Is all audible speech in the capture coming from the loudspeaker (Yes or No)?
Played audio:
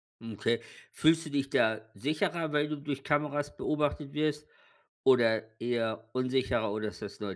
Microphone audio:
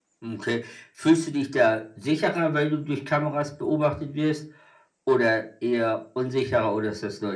Yes